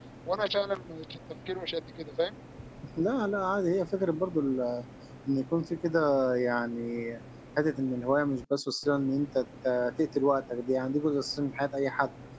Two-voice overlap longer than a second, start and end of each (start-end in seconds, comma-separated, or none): none